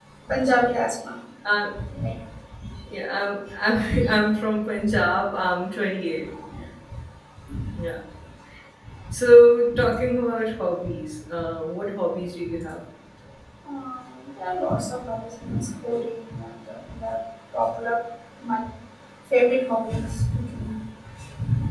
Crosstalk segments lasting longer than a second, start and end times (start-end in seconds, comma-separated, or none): none